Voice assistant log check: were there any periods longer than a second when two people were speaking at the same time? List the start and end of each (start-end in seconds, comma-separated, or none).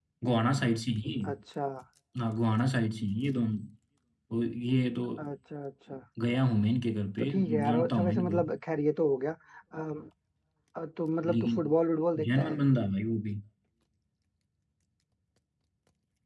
7.2-8.4